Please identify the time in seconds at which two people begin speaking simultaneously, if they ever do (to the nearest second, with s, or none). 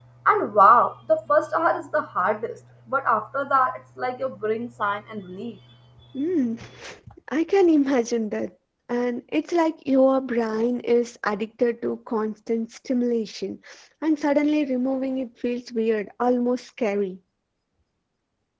none